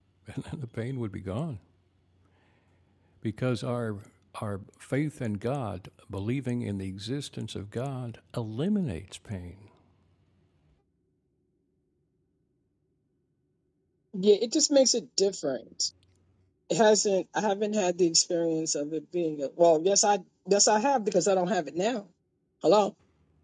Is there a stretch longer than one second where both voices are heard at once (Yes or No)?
No